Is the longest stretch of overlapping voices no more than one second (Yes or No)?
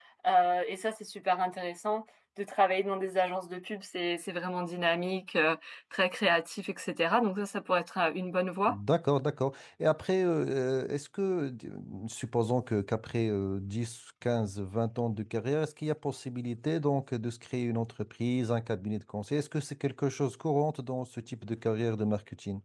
Yes